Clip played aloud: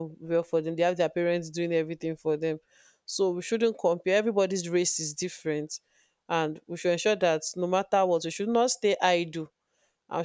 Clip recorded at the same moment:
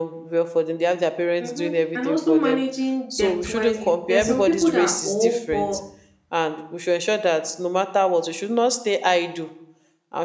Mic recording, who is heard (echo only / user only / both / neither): both